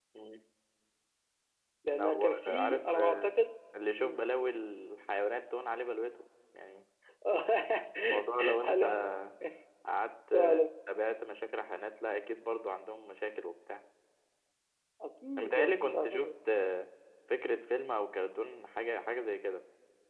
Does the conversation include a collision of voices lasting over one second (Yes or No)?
Yes